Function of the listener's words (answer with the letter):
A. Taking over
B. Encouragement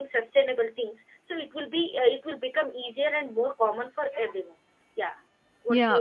A